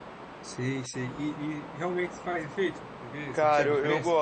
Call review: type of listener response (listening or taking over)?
taking over